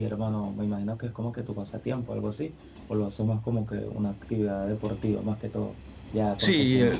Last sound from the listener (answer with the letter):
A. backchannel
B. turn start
B